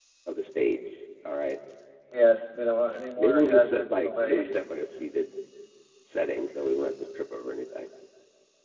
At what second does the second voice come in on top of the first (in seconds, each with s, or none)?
3.2 s